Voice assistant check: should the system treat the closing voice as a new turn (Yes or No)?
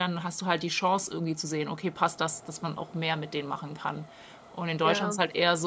No